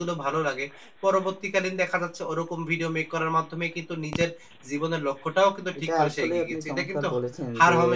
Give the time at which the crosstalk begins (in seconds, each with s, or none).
6.0 s